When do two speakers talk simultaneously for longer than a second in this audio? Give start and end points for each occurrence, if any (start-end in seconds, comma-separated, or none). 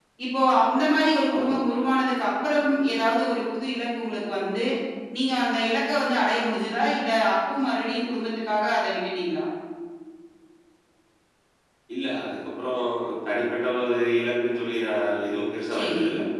none